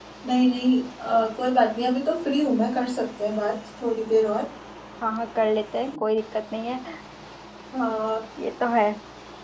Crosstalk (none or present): none